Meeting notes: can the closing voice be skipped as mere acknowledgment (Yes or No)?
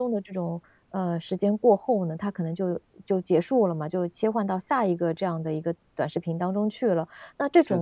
Yes